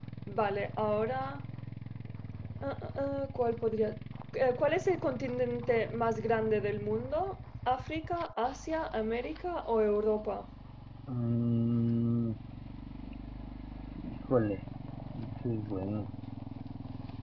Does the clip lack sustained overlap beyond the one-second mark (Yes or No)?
Yes